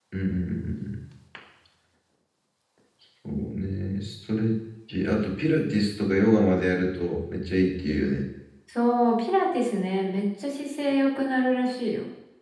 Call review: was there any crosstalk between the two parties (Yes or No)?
No